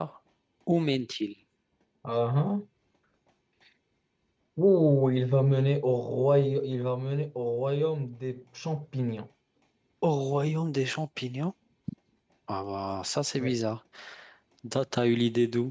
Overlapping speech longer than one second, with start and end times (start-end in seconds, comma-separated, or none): none